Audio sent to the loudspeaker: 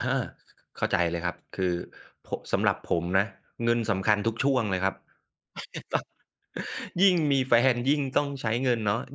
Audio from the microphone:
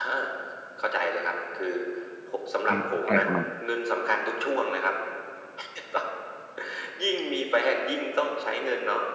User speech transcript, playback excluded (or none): อมอะไรประมาณ